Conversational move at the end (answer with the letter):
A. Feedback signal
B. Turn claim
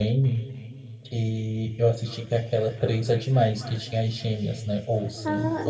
B